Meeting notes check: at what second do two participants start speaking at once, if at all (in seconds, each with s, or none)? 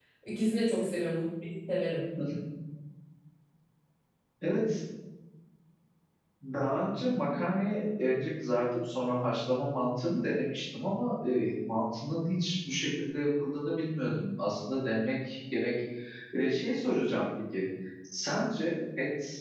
none